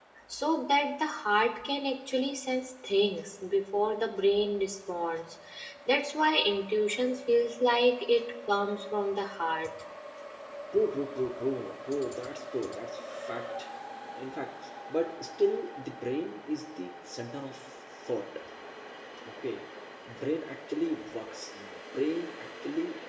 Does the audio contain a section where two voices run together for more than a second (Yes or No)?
No